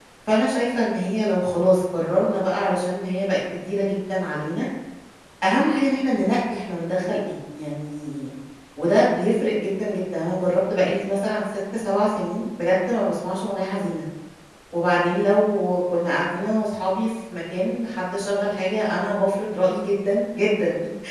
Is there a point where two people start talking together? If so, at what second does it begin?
none

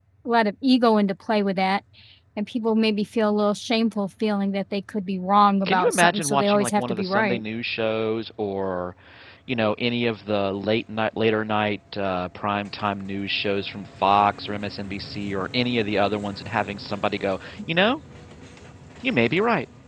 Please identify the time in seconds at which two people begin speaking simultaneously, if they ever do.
6 s

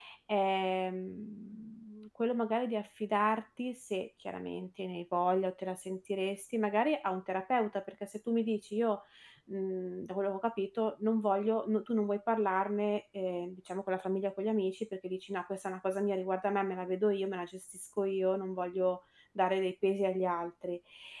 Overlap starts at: none

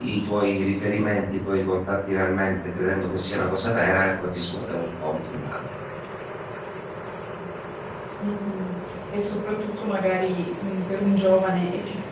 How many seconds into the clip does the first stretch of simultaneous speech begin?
none

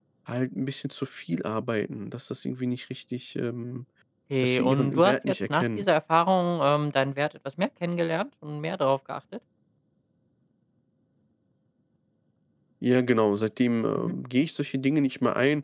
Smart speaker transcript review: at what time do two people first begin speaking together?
4 s

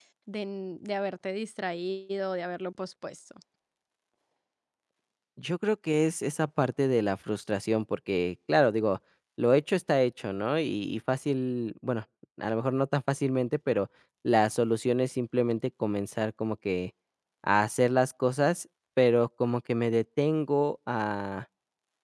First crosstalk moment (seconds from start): none

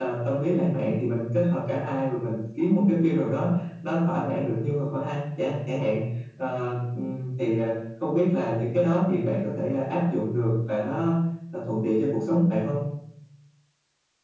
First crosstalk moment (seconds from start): none

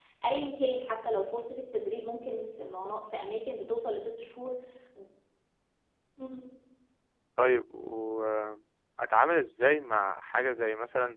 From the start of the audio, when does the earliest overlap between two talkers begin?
none

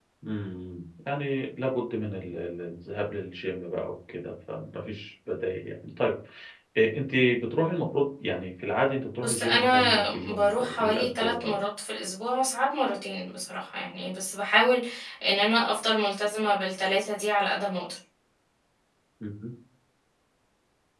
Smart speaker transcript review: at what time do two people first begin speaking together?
9 s

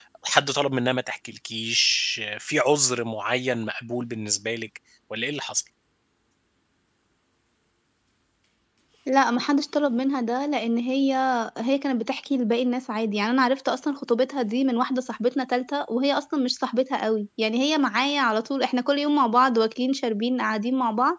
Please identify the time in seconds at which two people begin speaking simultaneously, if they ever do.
none

